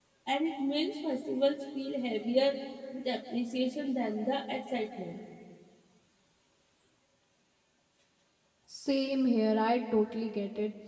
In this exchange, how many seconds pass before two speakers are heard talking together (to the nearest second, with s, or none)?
none